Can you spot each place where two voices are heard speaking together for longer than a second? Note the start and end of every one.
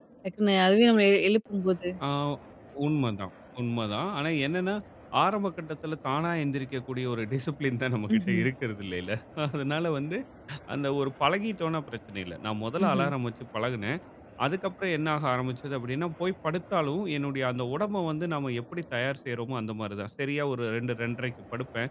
none

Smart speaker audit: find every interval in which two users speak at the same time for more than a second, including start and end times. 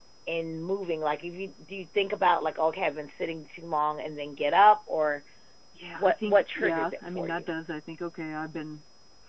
6.0-7.5

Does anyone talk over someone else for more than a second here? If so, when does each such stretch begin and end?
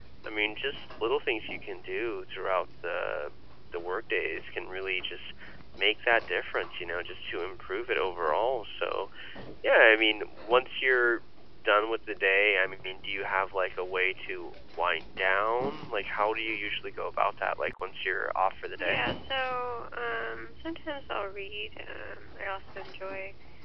none

